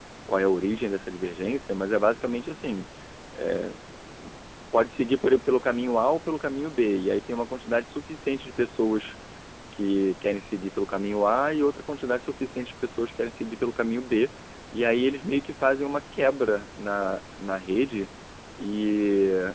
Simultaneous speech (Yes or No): No